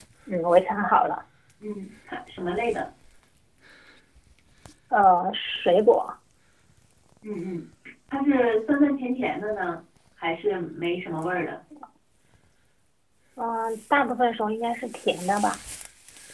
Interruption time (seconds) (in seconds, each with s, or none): none